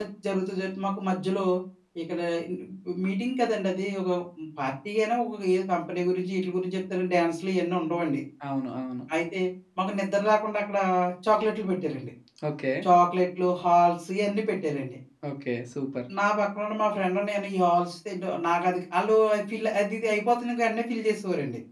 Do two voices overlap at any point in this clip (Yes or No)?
No